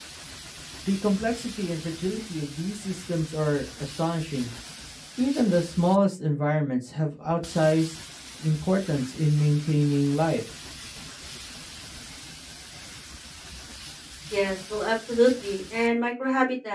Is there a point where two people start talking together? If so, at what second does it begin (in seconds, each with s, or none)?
none